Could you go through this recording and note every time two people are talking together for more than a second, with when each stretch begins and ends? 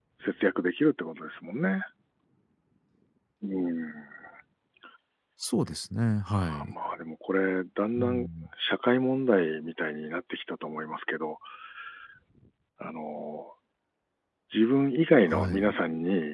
none

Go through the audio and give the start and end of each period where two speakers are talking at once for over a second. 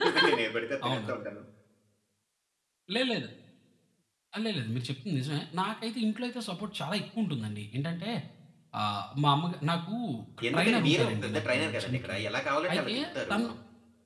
10.5-12.2

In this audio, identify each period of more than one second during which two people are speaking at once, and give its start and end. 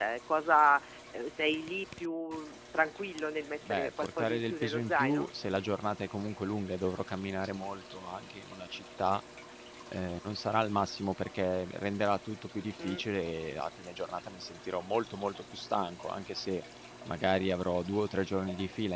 3.7-5.3

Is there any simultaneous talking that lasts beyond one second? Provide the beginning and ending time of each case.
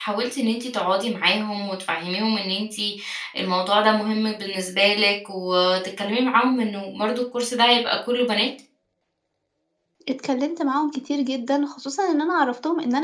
none

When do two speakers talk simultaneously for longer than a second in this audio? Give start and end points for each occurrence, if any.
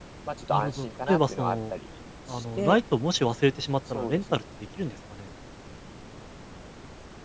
0.5-1.7

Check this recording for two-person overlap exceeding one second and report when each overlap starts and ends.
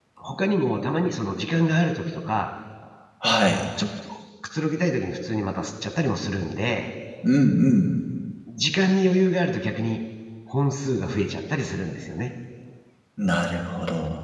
none

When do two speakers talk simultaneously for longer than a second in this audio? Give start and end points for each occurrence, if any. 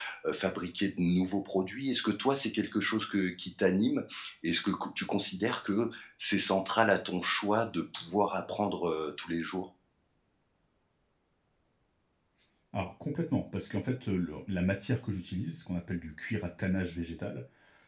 none

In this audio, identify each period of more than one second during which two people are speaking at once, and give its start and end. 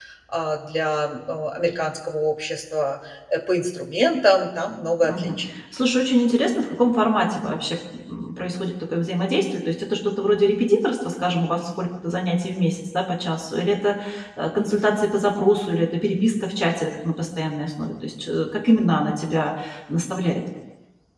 none

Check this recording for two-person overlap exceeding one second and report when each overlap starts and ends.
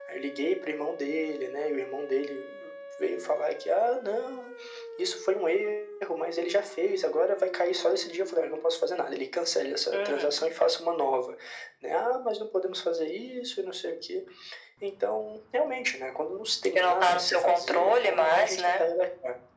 16.8-18.8

